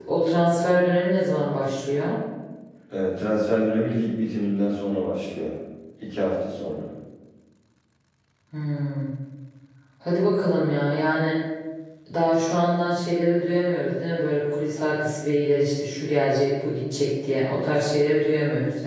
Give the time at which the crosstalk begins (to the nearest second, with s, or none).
none